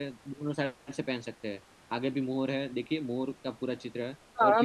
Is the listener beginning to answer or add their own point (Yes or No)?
Yes